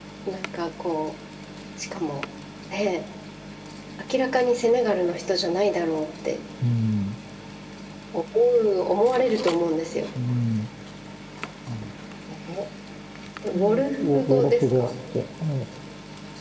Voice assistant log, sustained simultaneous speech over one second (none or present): present